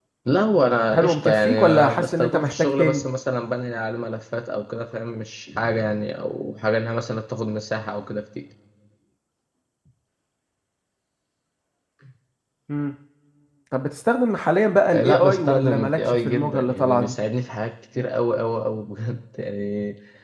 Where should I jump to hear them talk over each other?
0.9 s

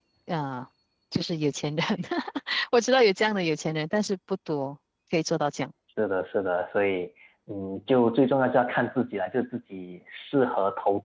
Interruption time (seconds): none

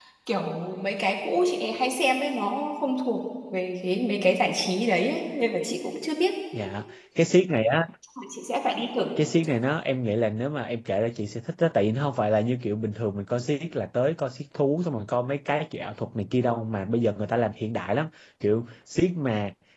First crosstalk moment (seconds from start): none

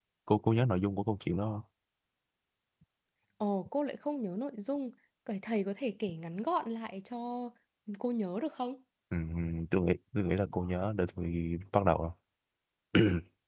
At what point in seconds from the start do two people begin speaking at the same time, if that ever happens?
none

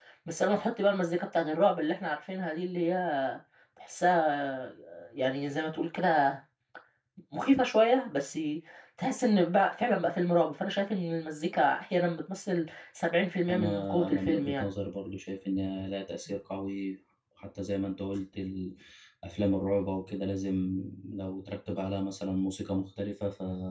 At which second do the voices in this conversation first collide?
13.5 s

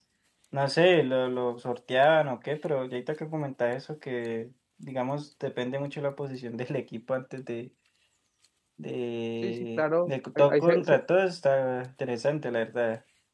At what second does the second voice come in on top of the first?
9.4 s

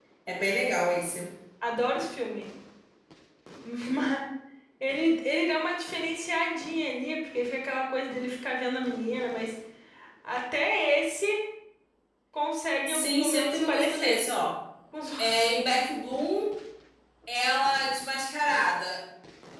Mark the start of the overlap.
12.9 s

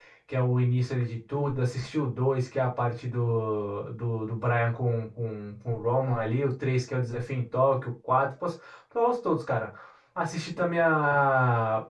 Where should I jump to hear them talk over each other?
none

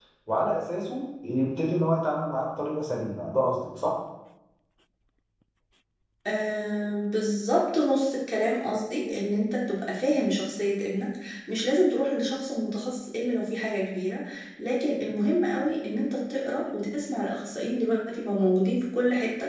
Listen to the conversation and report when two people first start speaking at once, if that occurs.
none

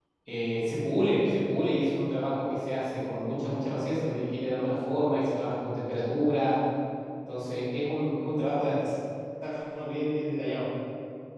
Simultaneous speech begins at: none

